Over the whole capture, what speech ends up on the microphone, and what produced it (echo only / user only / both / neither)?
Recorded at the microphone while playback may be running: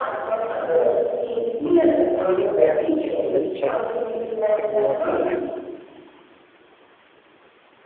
both